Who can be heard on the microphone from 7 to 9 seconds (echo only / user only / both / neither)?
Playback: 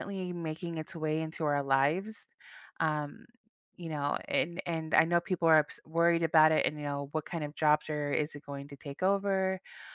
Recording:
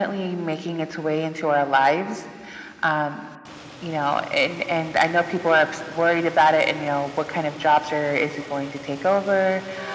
echo only